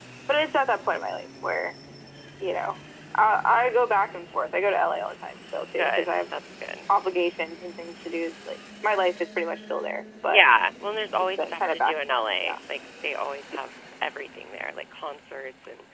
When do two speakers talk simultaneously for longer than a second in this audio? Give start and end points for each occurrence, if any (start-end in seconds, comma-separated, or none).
11.2-12.6